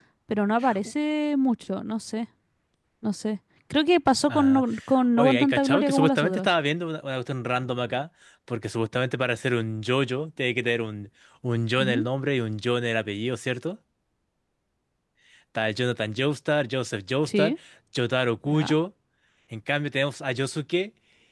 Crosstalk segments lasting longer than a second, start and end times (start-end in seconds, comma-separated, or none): 5.2-6.5